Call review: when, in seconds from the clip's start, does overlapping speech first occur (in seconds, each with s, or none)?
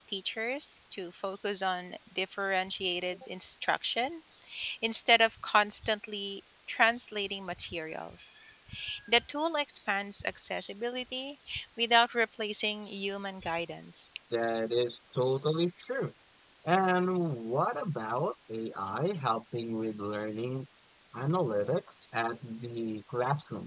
none